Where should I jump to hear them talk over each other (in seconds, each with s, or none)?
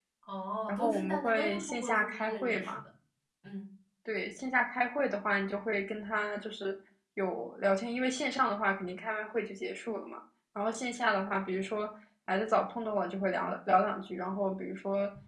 0.7 s